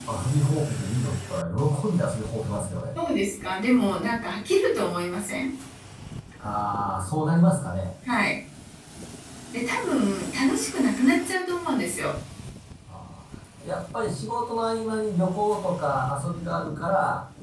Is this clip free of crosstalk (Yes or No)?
Yes